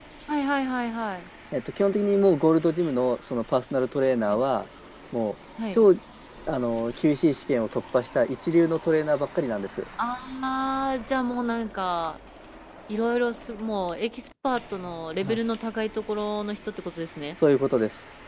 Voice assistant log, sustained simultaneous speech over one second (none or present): none